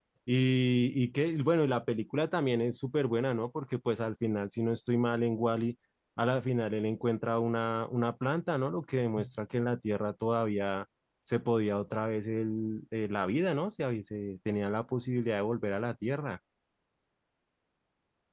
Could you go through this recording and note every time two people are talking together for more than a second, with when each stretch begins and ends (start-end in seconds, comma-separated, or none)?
none